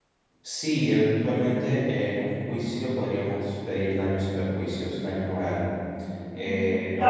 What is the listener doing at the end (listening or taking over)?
taking over